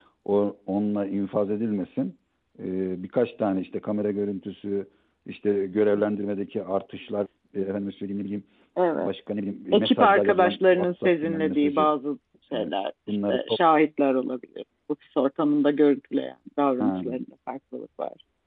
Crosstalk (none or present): present